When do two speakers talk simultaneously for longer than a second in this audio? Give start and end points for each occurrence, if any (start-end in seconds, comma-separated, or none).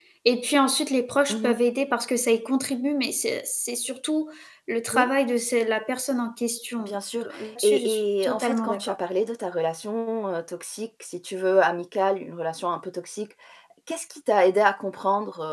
7.6-8.9